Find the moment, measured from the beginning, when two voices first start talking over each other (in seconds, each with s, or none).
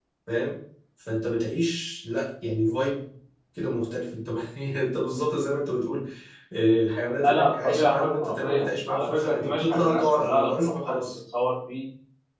7.1 s